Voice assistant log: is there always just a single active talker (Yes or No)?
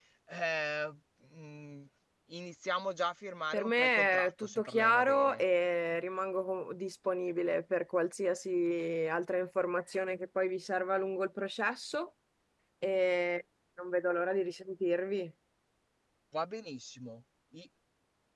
No